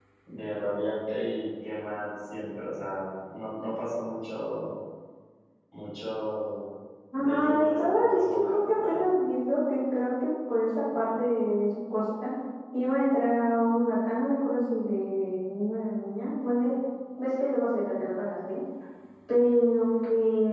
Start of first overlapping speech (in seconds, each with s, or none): 7.2 s